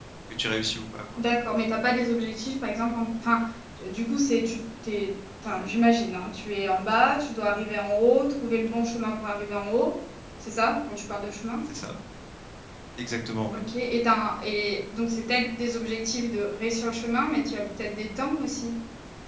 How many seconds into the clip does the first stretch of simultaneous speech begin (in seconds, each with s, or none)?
none